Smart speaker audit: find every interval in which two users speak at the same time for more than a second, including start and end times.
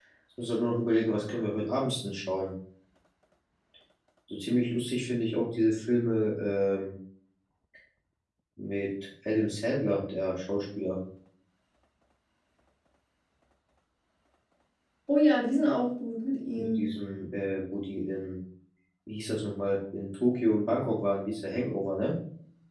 none

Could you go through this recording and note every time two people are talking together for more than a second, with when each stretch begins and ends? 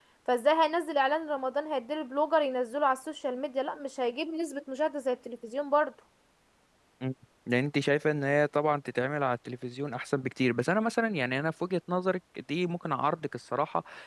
none

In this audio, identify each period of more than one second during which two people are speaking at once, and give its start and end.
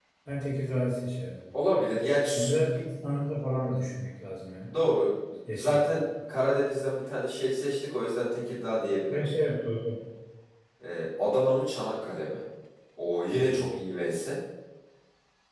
none

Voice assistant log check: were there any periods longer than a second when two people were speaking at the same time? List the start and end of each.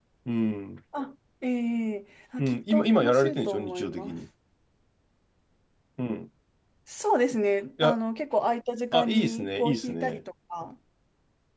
2.4-4.1, 8.9-10.2

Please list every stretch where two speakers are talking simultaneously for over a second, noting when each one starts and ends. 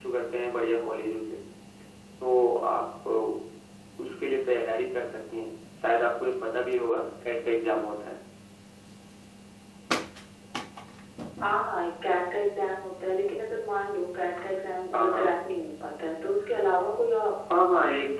none

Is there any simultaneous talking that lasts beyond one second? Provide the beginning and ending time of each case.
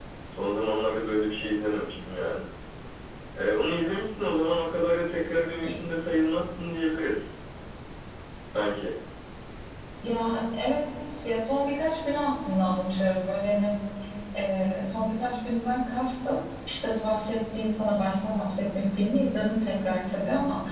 none

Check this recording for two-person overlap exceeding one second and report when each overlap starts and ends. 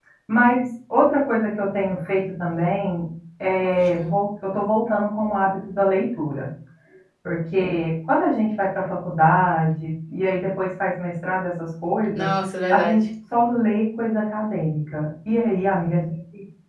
none

